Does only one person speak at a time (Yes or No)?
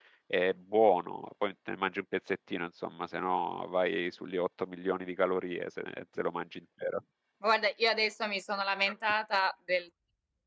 Yes